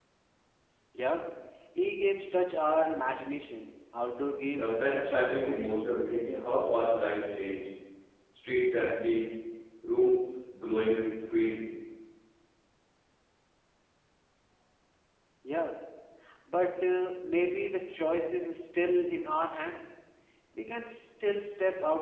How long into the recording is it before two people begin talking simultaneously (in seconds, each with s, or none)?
4.6 s